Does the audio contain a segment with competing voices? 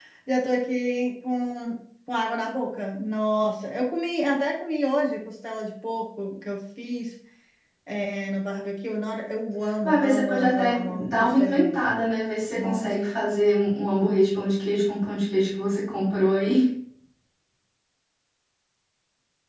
Yes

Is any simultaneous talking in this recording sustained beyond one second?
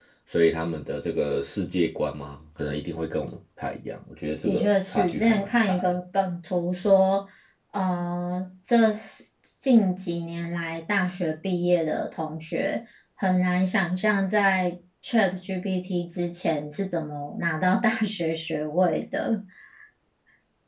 Yes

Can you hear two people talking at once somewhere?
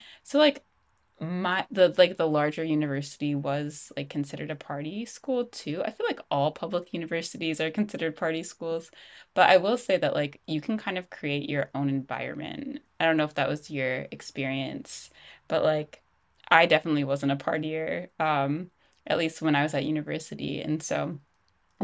No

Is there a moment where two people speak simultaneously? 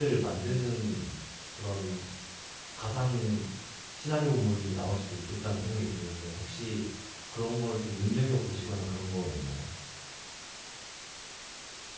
No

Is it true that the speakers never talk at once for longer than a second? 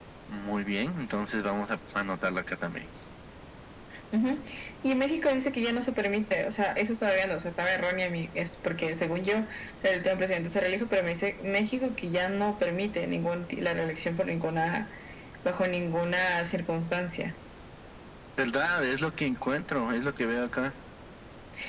Yes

